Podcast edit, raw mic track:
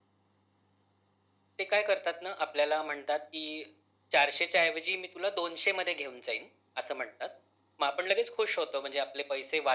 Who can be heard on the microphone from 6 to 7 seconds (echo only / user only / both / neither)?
echo only